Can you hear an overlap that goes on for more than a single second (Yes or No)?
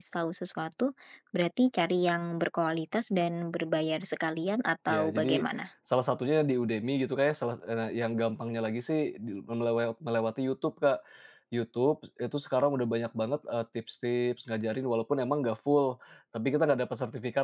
No